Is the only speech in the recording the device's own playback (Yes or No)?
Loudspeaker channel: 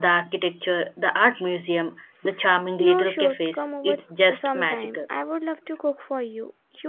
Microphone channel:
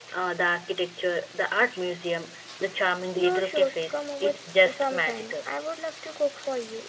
Yes